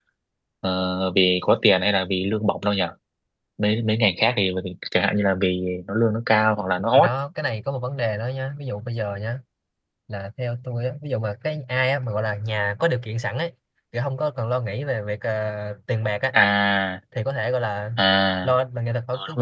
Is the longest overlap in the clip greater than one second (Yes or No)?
No